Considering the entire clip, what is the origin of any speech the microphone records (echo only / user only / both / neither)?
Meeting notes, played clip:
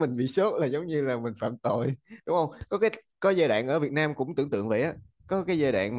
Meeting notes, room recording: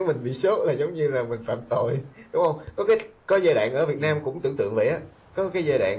both